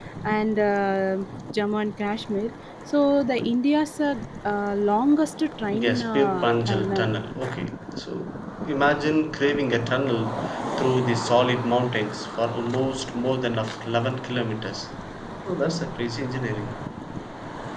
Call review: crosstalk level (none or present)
present